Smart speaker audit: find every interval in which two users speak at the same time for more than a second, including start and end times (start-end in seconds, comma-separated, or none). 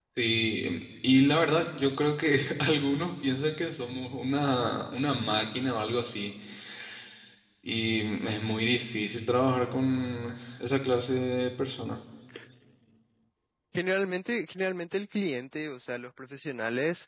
none